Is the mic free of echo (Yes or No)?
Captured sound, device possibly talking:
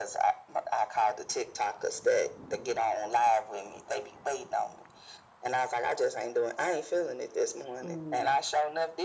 No